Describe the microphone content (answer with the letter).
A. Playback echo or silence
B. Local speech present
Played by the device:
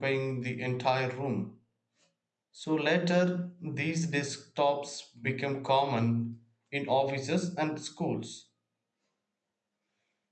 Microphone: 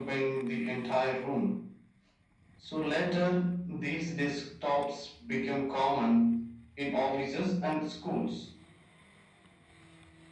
A